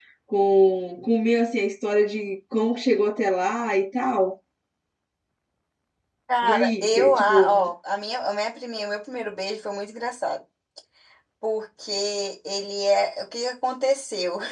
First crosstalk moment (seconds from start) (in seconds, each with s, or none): 6.4 s